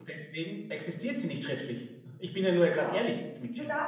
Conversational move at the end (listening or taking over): taking over